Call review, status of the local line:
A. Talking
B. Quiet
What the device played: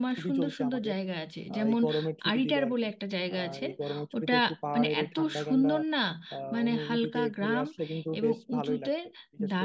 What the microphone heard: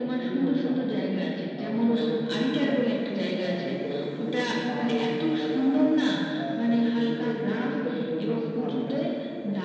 B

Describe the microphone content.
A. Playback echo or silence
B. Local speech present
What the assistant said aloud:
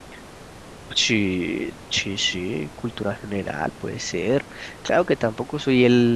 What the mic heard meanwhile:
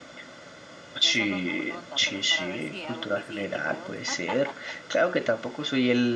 B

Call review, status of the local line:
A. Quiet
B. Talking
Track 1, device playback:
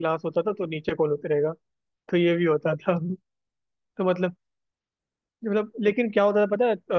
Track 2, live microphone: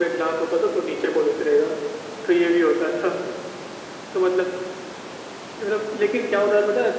A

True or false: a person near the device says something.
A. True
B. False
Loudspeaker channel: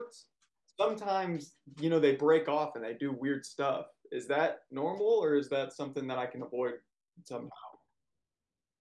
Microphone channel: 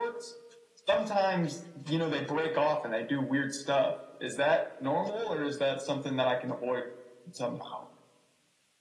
B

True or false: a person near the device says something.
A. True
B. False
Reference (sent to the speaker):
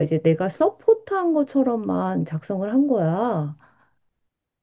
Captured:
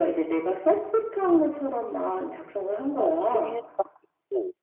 A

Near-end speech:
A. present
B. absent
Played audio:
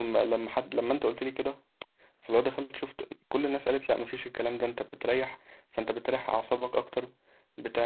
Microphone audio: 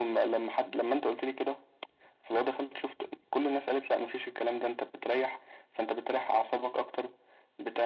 B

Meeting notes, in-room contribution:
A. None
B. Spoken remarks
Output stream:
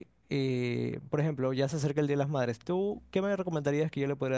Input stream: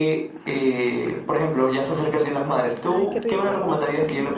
B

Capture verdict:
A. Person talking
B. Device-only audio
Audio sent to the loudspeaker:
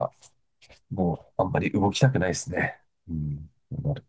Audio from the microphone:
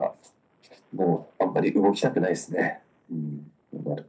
B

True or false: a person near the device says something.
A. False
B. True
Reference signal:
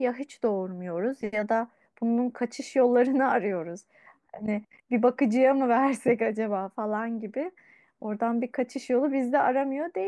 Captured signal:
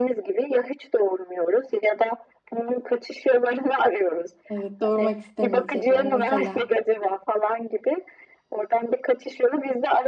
B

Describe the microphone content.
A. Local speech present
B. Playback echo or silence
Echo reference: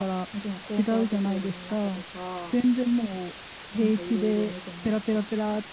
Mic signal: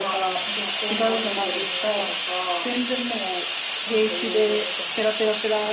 B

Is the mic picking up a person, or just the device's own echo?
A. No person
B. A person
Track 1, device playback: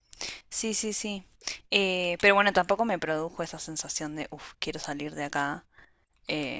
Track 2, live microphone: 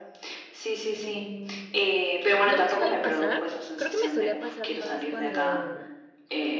B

